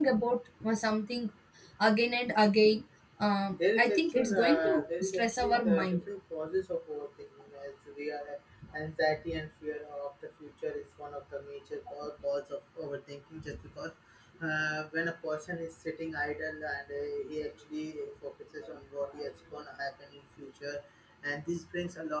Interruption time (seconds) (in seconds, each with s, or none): 3.8 s